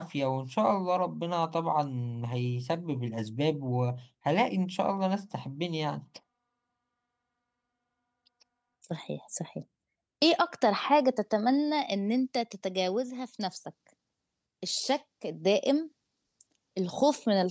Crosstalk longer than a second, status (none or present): none